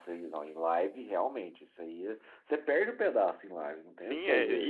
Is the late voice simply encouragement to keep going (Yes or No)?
No